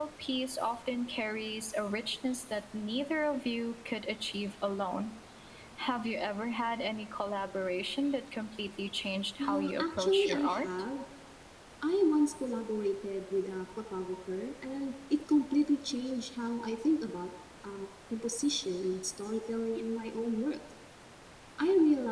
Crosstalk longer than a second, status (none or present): present